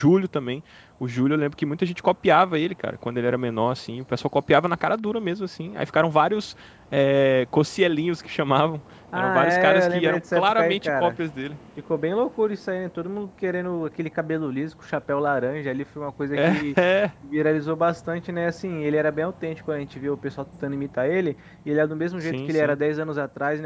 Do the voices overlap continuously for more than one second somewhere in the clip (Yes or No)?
Yes